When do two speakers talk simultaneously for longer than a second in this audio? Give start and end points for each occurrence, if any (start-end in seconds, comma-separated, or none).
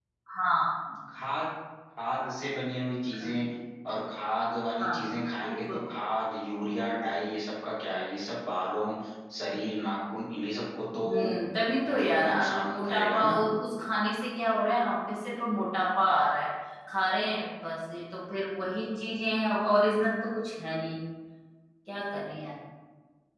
11.9-13.3